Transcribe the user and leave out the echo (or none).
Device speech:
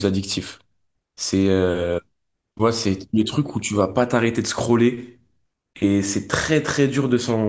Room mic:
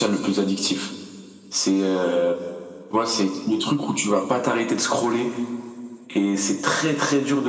none